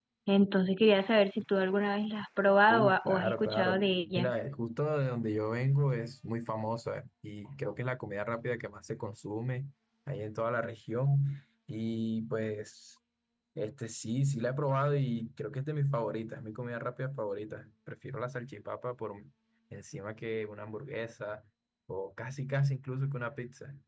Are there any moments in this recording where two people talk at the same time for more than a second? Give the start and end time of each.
2.7-4.3

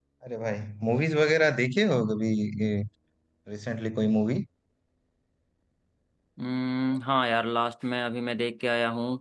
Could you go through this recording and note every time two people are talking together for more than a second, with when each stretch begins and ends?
none

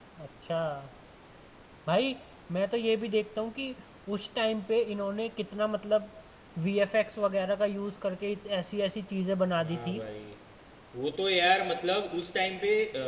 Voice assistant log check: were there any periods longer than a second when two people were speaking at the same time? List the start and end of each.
none

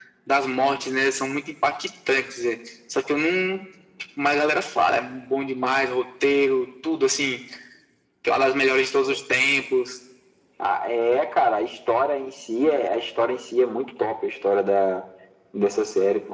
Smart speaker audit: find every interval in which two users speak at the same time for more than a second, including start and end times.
none

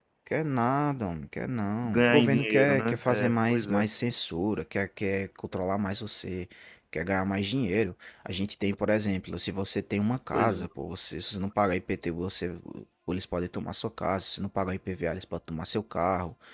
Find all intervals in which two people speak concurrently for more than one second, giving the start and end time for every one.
1.8-3.9

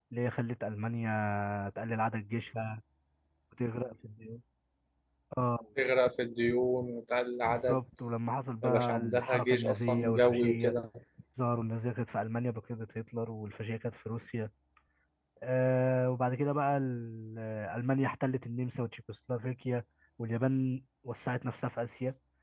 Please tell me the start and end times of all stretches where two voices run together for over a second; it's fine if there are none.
8.6-10.8

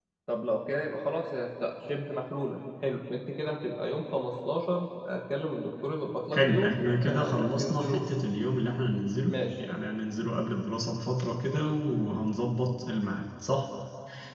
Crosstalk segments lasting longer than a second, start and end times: 6.3-8.1

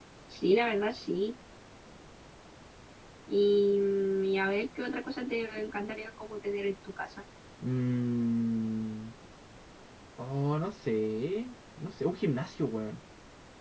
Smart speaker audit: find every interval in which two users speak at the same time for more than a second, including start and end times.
none

